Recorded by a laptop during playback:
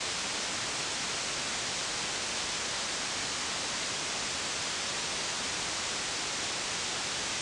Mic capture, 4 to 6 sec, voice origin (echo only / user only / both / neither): neither